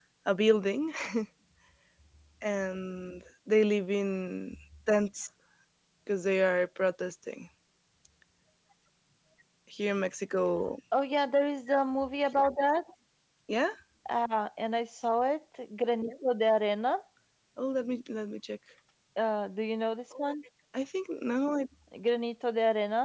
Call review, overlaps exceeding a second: none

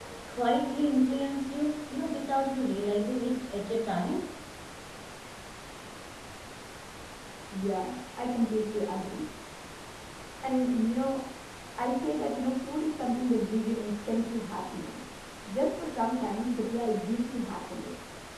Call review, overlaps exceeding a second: none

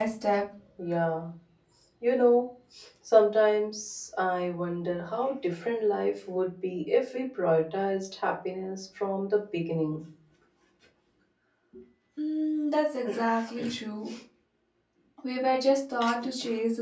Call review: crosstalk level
none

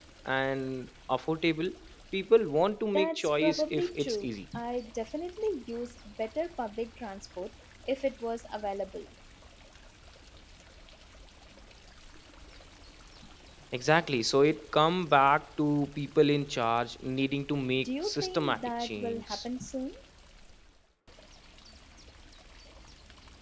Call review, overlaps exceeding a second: present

